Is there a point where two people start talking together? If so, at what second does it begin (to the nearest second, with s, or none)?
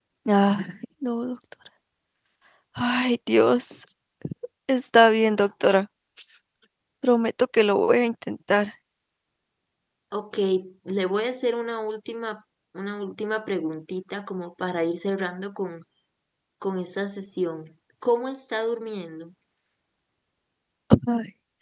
none